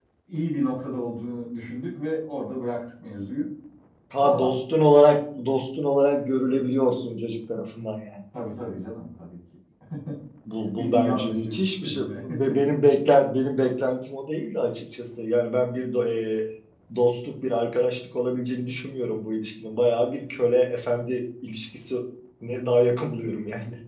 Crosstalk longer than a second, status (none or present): present